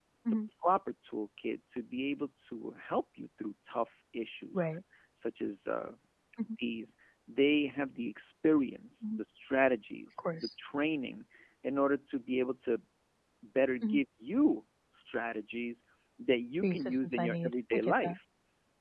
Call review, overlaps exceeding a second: present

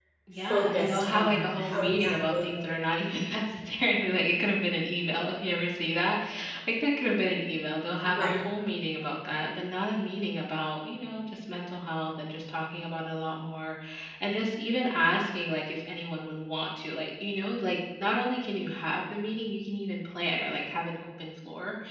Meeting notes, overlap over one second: present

